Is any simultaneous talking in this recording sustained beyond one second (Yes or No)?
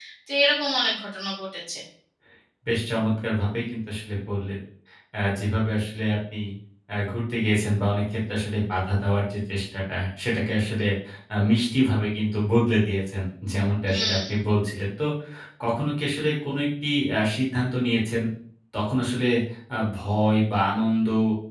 No